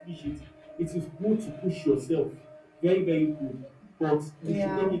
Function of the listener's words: listening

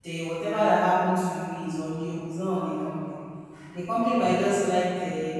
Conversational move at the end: listening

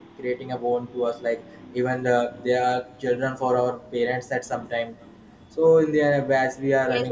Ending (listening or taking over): taking over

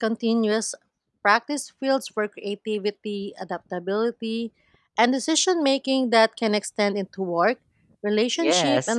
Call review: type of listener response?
taking over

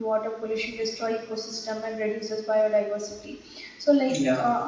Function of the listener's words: listening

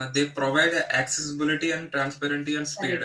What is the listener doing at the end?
taking over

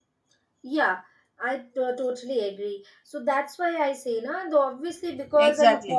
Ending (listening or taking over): listening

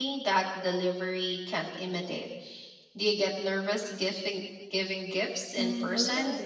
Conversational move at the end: taking over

